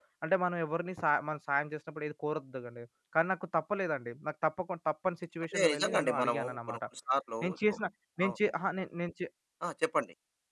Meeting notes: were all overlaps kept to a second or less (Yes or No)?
No